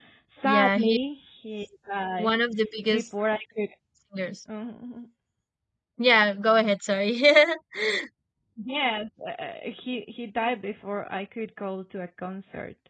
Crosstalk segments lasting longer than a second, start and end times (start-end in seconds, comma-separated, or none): none